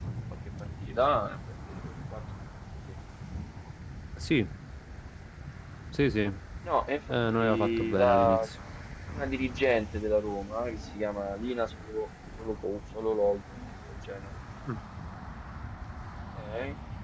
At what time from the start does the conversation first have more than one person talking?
7 s

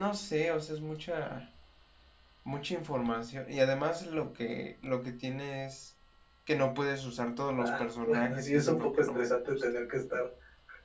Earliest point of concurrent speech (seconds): 8 s

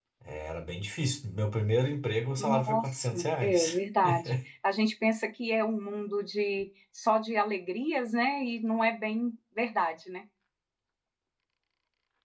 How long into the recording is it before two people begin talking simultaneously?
2 s

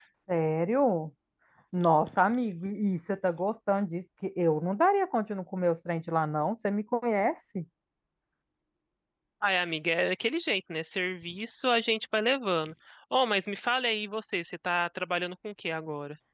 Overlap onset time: none

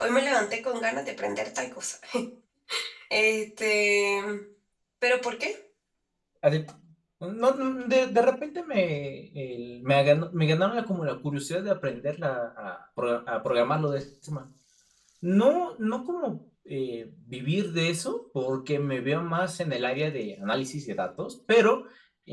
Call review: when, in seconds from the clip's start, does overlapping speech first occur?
none

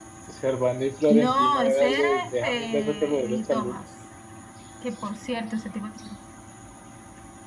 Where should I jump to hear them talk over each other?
1 s

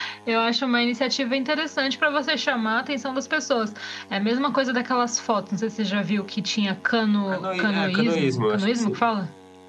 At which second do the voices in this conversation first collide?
7 s

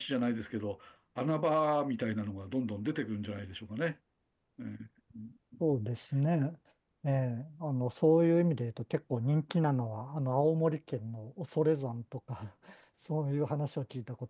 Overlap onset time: none

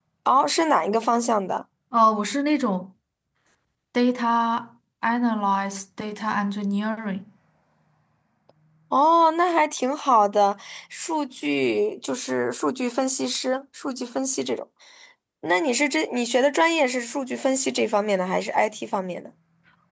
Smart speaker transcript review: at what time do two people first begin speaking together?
none

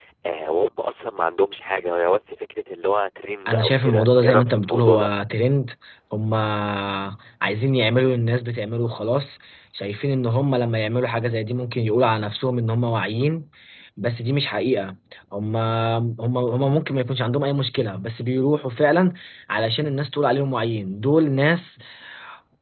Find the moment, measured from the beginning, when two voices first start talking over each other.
3 s

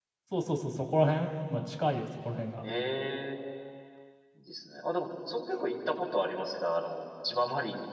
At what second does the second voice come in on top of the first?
none

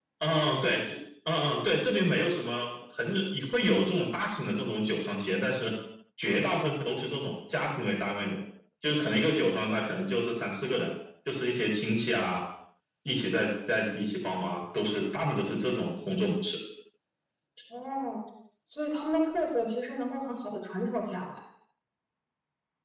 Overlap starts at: none

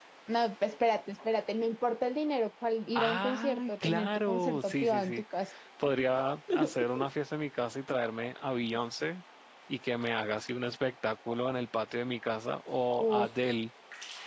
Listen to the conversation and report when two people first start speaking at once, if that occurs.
3 s

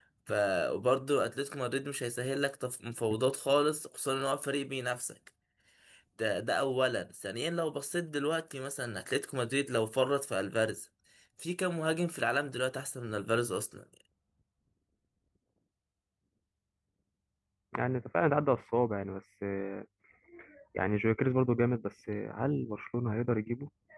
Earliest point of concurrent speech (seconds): none

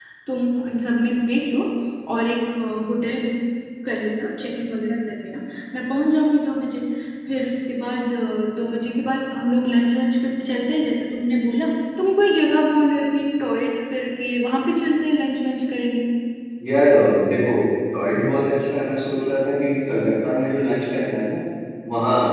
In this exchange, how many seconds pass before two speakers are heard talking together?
none

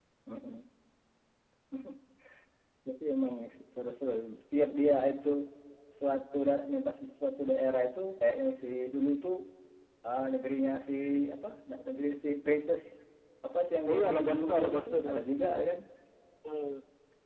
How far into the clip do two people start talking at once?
14 s

